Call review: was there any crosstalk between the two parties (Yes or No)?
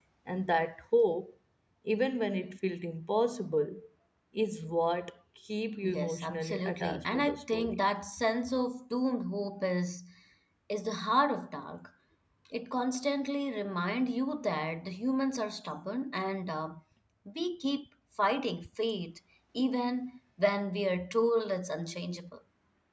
Yes